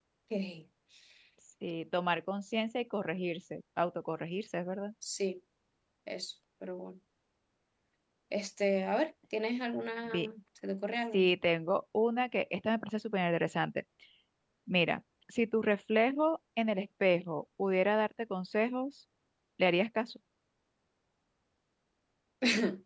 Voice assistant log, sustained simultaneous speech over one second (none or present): none